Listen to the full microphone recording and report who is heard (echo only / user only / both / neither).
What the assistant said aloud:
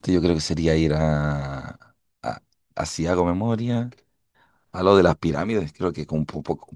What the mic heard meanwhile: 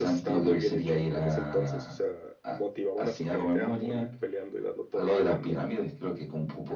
both